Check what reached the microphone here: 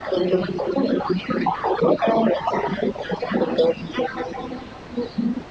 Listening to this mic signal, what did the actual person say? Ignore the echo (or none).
none